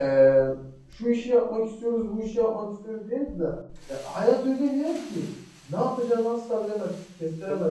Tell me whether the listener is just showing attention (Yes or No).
No